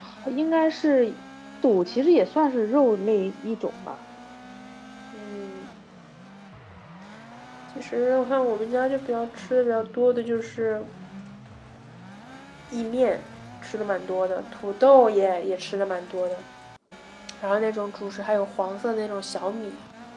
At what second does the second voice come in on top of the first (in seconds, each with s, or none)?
none